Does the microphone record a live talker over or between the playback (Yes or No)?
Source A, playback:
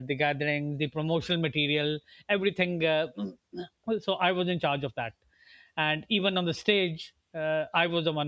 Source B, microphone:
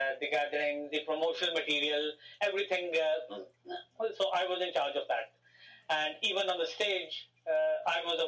No